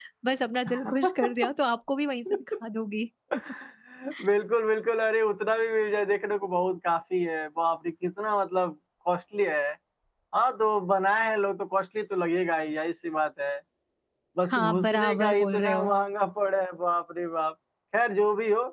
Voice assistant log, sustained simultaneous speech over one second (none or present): present